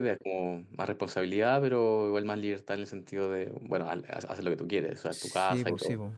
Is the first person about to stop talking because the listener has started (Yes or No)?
Yes